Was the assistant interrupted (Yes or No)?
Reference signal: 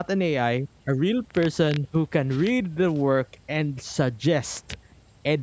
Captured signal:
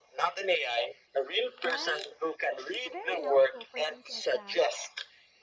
Yes